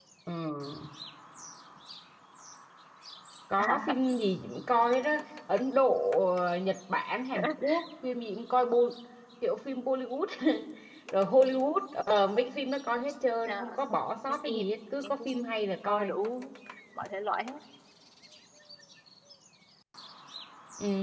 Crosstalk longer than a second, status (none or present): present